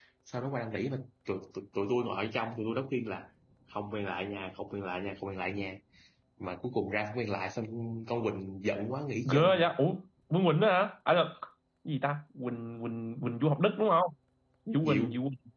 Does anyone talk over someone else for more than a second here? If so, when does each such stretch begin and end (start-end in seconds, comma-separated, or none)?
none